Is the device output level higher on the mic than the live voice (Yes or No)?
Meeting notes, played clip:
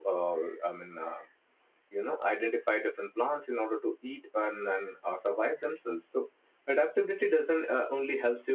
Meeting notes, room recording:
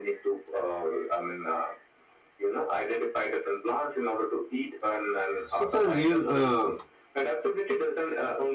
No